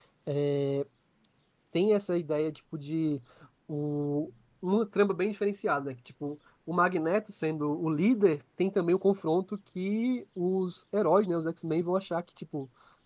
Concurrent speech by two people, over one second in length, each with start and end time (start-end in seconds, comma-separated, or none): none